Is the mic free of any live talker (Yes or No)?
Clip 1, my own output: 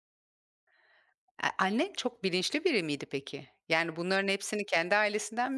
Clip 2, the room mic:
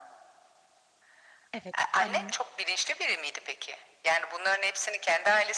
No